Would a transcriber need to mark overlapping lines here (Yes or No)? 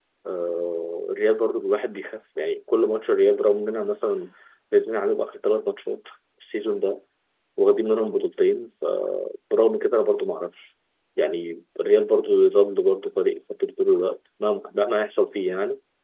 No